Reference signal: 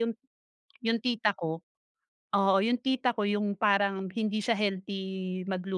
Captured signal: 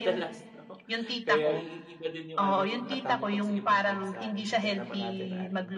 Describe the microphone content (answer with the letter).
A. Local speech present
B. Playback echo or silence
A